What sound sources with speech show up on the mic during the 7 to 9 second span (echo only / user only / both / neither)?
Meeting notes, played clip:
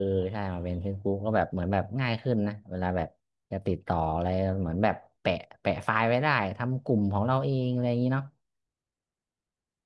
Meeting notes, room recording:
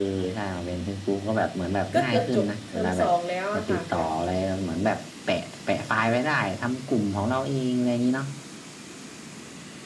echo only